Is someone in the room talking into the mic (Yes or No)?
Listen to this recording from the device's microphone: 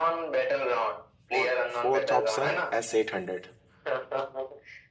Yes